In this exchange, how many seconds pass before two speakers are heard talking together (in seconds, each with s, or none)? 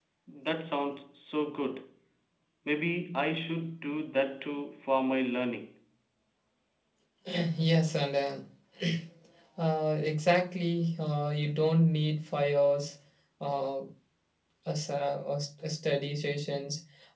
none